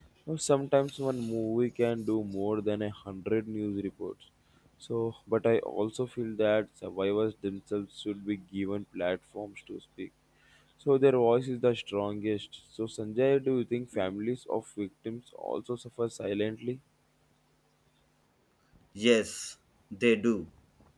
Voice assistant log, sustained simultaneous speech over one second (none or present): none